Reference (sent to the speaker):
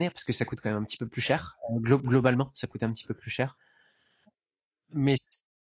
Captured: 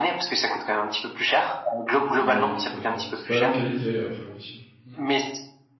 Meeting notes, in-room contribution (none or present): present